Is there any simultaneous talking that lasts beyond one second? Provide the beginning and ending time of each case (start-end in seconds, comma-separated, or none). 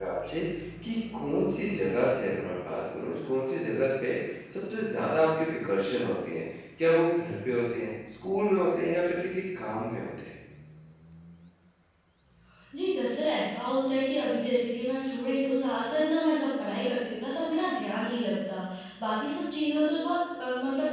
none